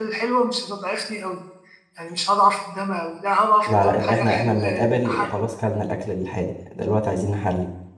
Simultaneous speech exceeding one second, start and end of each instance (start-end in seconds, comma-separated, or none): 3.7-5.3